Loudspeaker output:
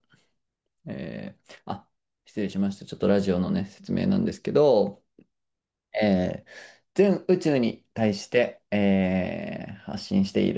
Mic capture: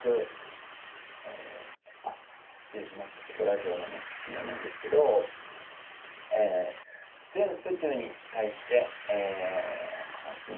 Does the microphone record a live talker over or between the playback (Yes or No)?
No